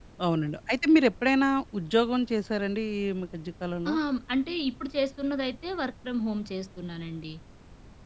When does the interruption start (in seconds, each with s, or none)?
none